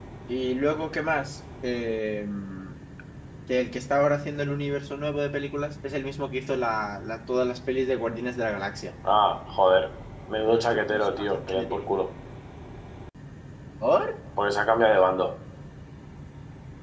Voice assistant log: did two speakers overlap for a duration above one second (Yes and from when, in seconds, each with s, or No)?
Yes, from 10.5 s